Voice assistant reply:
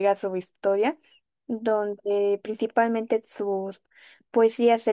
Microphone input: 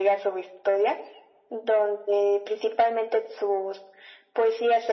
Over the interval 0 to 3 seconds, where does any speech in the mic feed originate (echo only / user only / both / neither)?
echo only